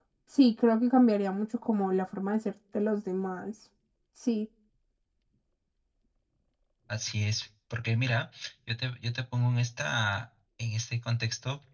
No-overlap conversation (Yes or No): Yes